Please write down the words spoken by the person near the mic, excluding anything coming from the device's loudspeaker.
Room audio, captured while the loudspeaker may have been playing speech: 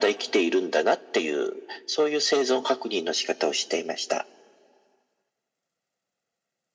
none

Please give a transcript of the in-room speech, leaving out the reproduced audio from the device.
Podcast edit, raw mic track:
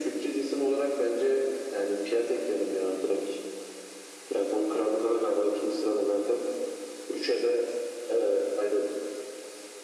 none

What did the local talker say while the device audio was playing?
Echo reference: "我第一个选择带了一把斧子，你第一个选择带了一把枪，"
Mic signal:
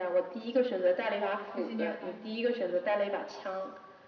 卫星电话，

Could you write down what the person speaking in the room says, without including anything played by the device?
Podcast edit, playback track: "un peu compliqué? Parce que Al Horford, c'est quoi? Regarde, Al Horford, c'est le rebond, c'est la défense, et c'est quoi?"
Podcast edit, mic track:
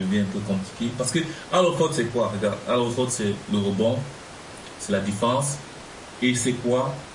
none

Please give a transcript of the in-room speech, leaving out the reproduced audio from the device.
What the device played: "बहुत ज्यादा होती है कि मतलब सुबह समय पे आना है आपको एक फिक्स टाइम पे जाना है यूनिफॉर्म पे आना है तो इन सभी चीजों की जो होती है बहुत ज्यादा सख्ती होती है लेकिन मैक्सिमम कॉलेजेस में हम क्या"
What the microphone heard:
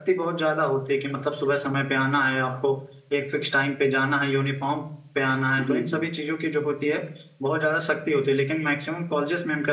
जी, जी।

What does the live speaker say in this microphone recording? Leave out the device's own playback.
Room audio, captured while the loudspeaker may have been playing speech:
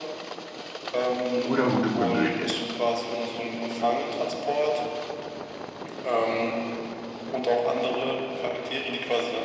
oder gute Komödien.

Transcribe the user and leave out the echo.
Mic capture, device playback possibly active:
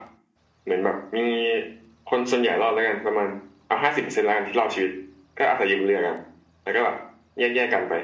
none

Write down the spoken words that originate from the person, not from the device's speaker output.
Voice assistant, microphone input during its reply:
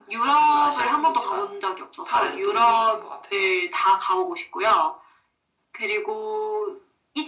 none

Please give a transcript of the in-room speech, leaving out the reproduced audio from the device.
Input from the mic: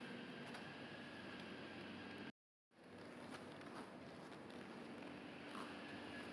none

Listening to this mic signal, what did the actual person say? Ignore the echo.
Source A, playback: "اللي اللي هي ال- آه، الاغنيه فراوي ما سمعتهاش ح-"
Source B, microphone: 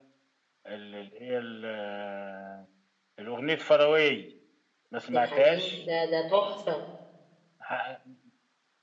عبد الحليم ده ده تحفة

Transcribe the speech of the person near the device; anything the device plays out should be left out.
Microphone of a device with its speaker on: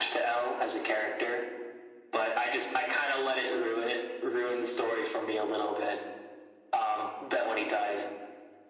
none

